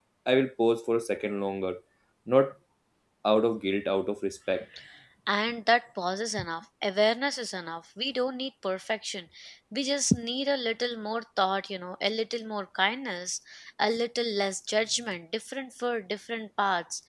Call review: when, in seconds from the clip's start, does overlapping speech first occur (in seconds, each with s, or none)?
none